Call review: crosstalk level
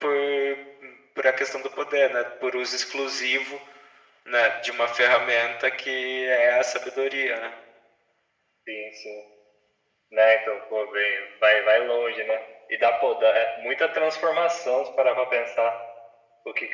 none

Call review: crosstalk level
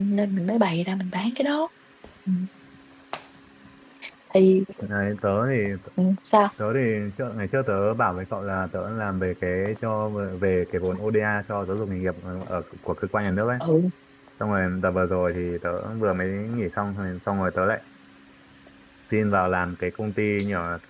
none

